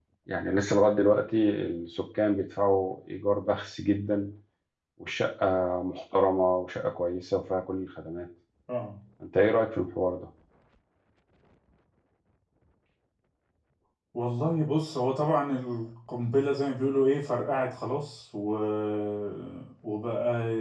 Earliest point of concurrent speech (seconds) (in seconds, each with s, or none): none